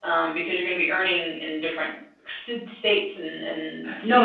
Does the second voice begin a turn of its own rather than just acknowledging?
Yes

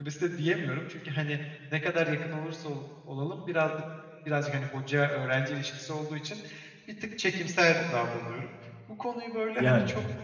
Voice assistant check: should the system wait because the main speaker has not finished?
Yes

